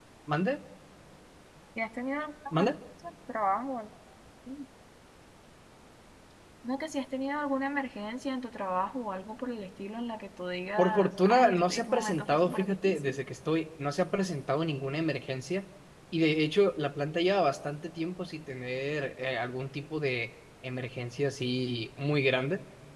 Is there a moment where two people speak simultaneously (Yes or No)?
Yes